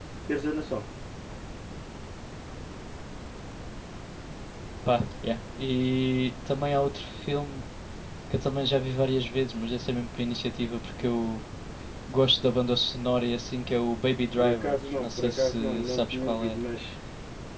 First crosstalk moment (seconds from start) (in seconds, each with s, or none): 14.4 s